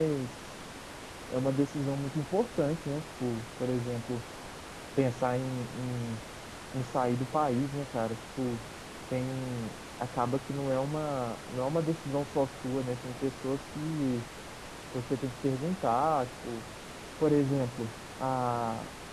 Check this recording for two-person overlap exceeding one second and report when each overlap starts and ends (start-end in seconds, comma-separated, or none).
none